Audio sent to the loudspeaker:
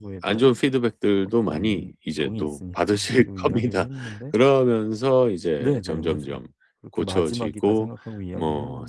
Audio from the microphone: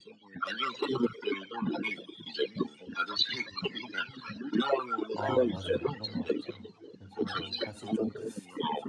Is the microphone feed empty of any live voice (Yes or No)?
No